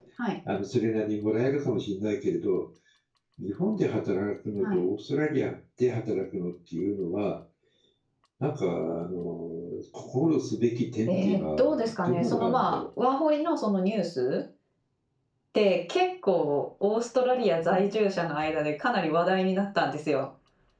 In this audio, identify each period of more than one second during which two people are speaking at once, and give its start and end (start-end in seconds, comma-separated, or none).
11.1-12.8